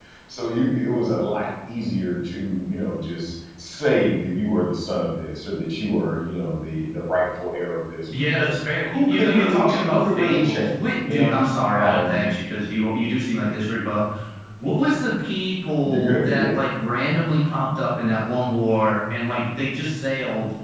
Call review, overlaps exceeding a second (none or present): present